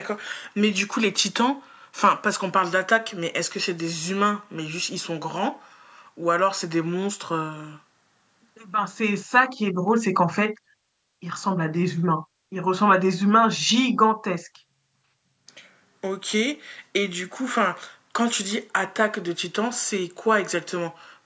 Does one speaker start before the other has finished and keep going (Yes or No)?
No